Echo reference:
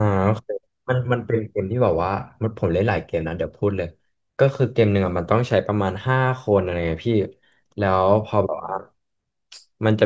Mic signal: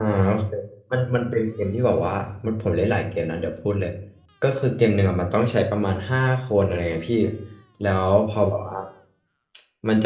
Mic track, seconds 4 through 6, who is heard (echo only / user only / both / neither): echo only